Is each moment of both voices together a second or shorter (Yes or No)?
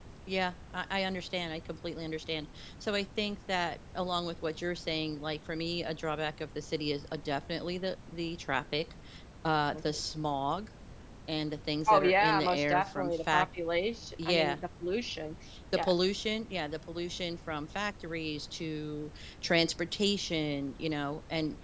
No